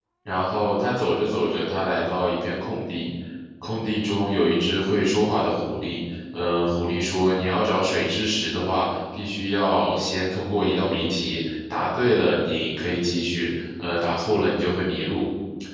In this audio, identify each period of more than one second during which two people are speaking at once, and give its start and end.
none

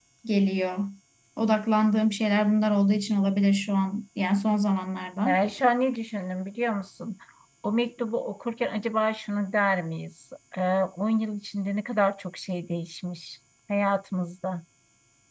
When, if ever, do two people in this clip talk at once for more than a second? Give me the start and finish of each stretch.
none

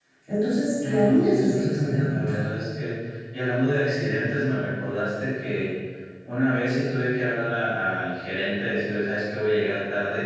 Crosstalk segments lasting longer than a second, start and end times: 0.8-2.5

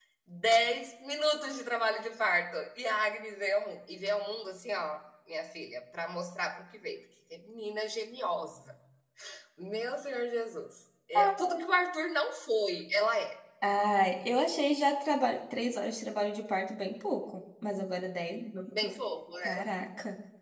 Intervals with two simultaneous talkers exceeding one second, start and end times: none

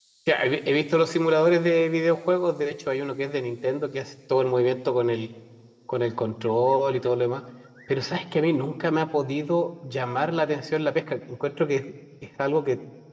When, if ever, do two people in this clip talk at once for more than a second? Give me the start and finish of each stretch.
none

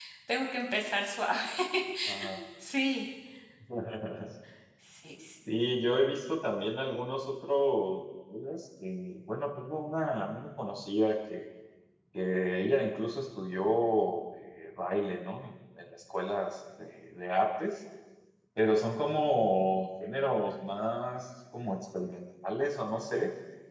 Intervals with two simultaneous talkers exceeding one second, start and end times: none

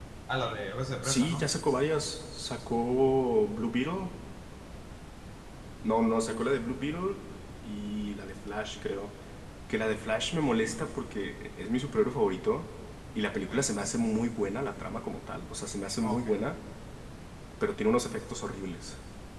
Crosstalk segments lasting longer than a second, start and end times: none

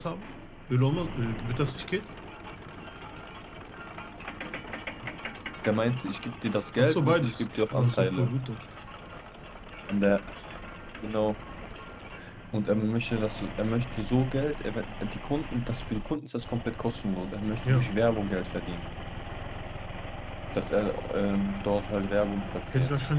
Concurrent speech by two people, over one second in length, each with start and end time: 6.8-8.3

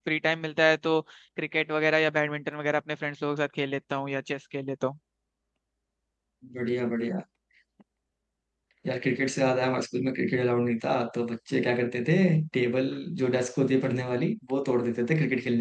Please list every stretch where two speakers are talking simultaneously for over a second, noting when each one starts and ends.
none

